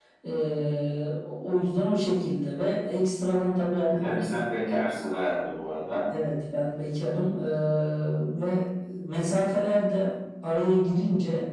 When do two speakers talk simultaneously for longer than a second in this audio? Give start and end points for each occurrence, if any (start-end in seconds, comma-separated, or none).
none